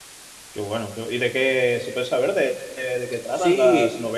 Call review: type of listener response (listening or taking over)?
taking over